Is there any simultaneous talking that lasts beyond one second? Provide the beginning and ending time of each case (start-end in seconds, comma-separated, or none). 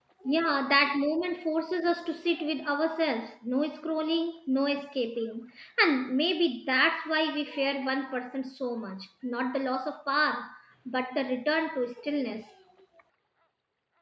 none